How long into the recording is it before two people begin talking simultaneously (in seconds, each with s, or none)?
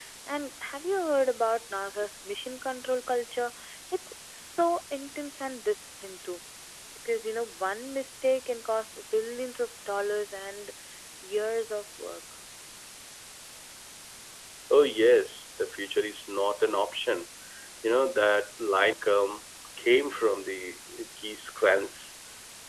none